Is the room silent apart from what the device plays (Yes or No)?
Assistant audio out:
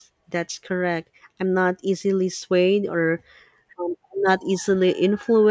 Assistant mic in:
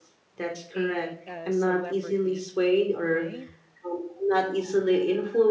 No